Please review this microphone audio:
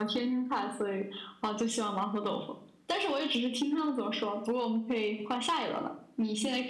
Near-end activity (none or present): none